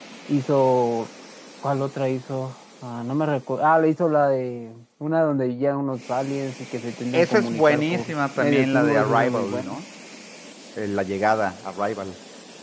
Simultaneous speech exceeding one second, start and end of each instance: 7.1-9.8

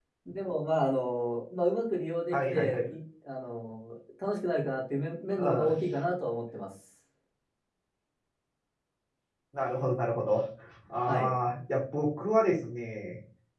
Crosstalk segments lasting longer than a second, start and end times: none

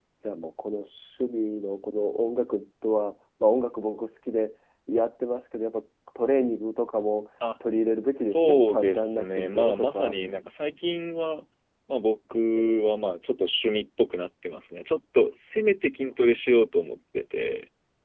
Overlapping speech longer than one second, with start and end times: 8.2-10.2

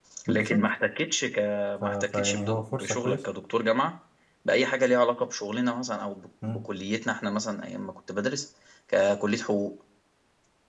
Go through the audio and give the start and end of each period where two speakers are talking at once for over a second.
1.8-3.2

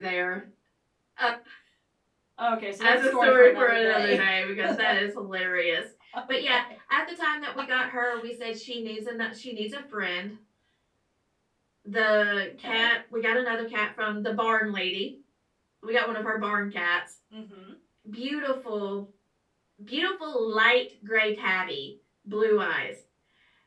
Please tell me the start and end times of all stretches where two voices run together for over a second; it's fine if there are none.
2.8-4.2

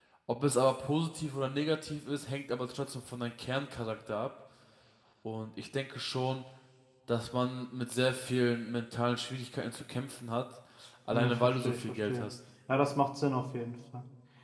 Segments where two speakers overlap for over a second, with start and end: 11.1-12.3

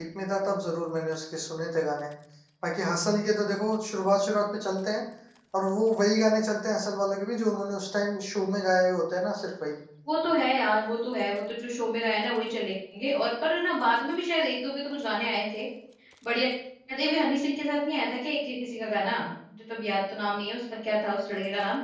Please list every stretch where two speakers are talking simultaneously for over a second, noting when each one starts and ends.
none

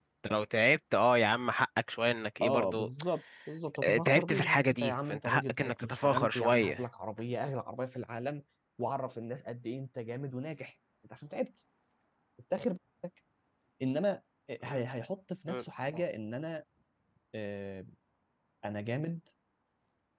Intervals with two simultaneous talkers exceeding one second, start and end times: 3.8-6.8

